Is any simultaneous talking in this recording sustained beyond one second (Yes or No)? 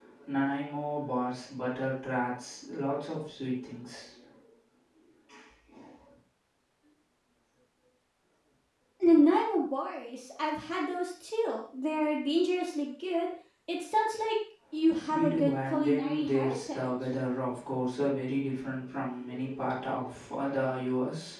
Yes